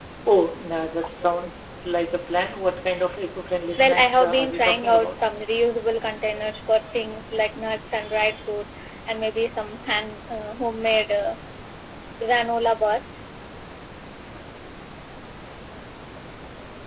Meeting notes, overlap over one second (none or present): present